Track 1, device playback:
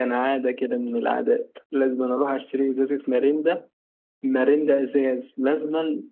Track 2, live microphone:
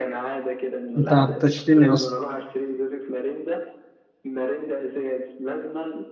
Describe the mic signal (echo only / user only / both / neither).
both